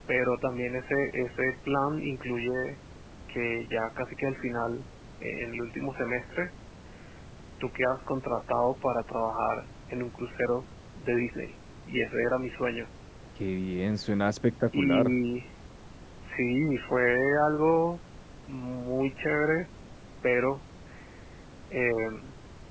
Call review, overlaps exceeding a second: none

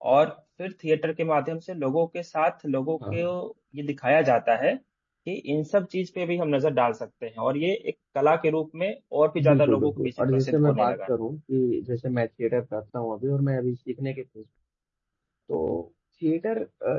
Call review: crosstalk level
present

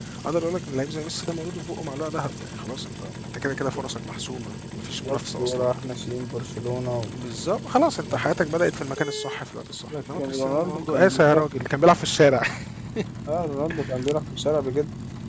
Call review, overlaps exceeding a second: present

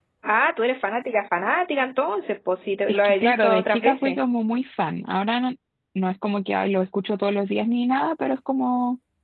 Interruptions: present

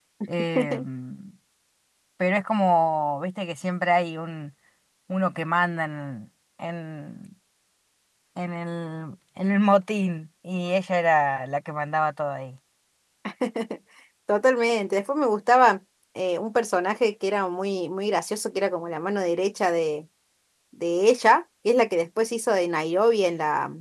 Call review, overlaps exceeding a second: none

